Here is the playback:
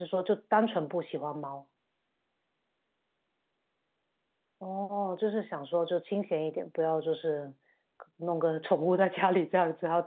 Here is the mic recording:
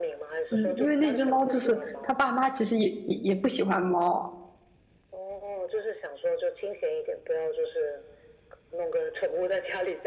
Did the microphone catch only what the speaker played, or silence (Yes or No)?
No